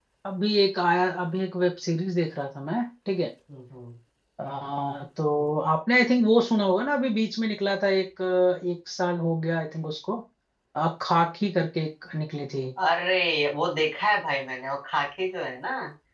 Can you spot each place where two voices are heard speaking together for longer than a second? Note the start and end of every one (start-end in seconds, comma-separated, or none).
none